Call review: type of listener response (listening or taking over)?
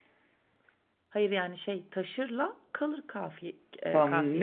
taking over